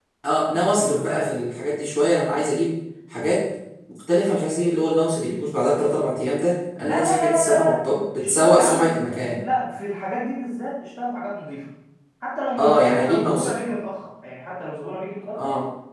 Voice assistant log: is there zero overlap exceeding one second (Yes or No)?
No